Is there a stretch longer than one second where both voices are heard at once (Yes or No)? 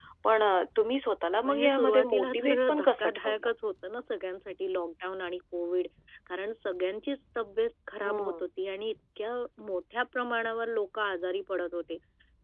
Yes